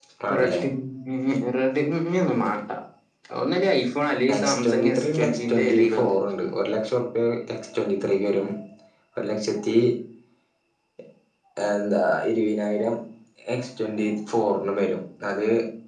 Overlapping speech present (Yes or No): Yes